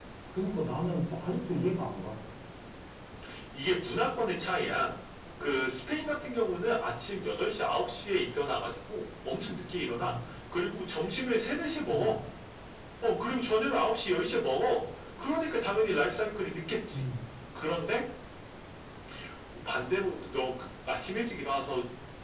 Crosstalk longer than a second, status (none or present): none